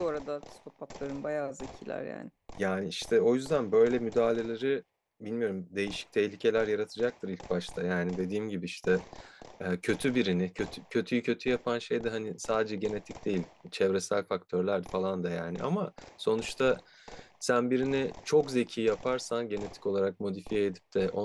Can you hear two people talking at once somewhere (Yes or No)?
No